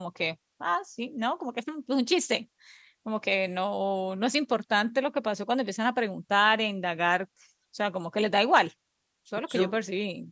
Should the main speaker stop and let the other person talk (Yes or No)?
Yes